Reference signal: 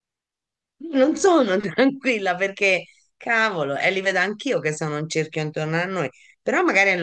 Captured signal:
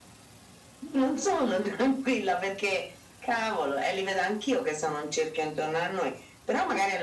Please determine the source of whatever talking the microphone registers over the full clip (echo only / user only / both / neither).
echo only